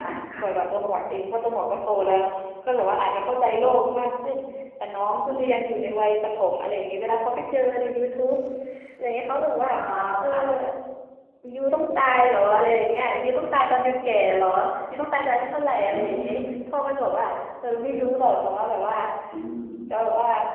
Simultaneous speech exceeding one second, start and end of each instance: none

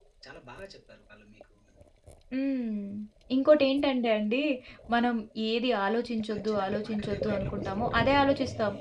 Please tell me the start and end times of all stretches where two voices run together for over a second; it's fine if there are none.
6.3-8.0

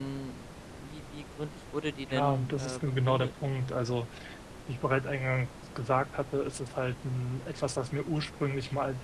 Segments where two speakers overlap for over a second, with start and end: 2.1-3.3

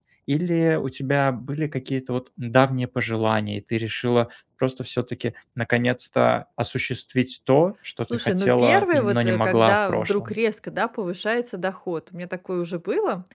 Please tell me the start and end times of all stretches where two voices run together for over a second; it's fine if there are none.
8.1-10.3

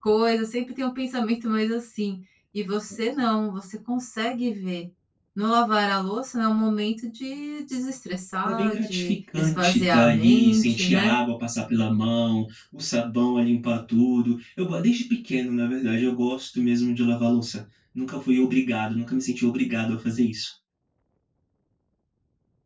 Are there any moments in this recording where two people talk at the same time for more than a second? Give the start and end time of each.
8.4-11.2

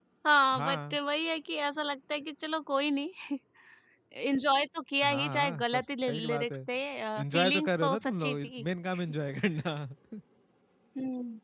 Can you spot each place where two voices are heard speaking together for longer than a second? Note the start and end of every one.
5.0-6.6, 7.2-8.6

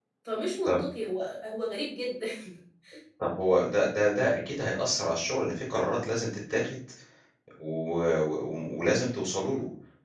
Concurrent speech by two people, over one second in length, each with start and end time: none

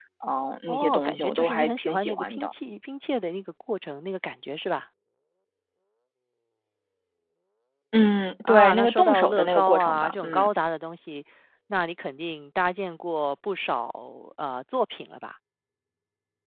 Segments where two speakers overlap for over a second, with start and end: 0.7-2.5, 8.4-10.5

